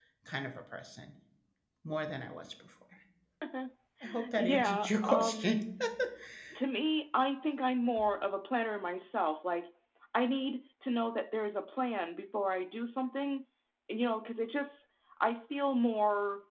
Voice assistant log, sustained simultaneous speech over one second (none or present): present